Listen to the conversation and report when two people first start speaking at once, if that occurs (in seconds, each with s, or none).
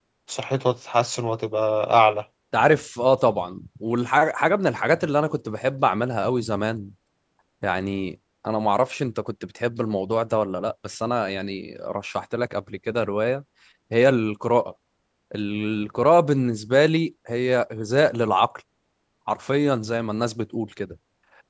none